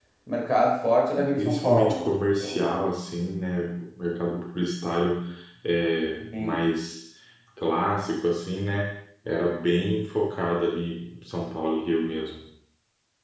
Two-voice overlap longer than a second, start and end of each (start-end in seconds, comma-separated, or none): 1.4-2.9